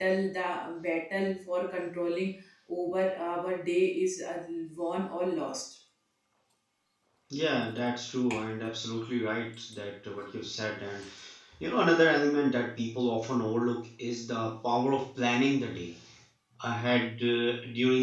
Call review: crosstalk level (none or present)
none